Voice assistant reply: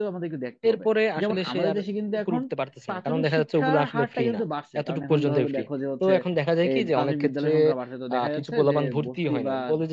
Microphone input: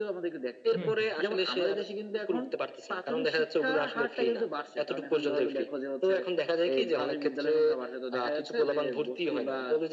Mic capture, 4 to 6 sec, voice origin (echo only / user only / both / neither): echo only